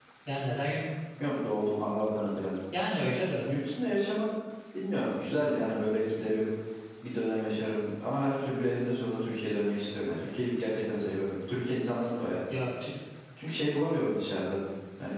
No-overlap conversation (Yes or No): Yes